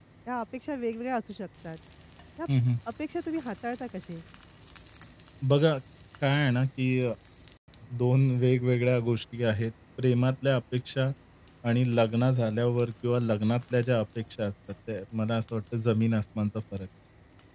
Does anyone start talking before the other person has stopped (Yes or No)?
No